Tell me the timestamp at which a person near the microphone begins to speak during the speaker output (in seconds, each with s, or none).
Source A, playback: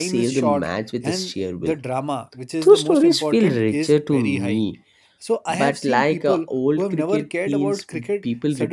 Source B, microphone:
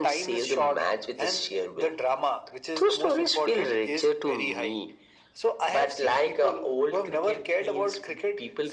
none